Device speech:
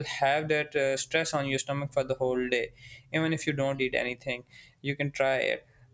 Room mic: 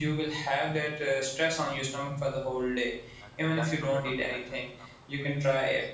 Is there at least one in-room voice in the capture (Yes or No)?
Yes